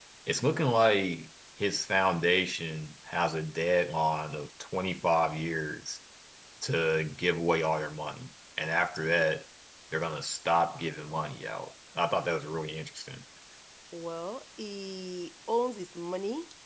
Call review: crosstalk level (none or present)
none